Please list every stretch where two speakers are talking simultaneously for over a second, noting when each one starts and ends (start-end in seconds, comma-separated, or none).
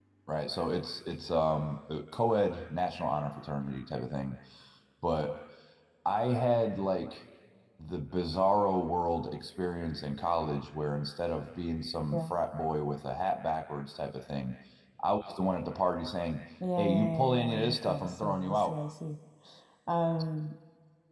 16.8-18.8